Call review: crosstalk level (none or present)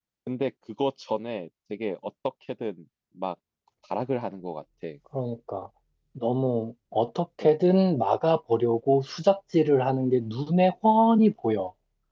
none